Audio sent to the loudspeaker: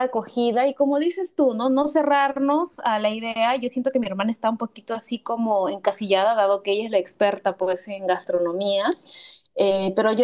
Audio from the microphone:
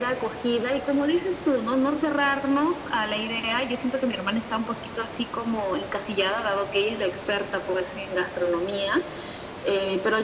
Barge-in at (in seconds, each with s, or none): none